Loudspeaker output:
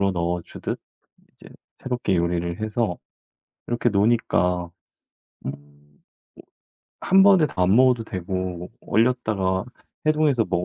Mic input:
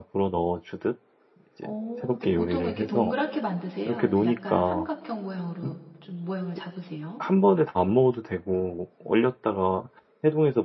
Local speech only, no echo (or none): 오. 근데 보통은 이렇게 동그랗게 만드세요? 아니면 약간 삼각형 모양으로 좀 모양을 잡으세요?